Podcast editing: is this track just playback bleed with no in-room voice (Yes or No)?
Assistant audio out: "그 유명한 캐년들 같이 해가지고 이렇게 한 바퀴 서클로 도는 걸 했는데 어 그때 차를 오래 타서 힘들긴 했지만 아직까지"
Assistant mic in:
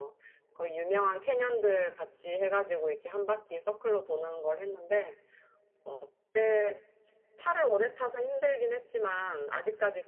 Yes